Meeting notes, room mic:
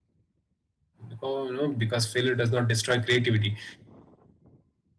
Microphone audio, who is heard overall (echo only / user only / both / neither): user only